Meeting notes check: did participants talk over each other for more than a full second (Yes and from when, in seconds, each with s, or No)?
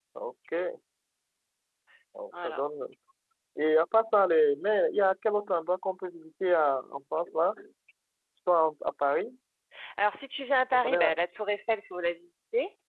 No